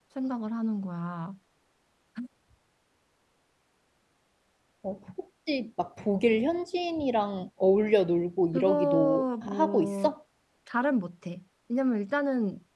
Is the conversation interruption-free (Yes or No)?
No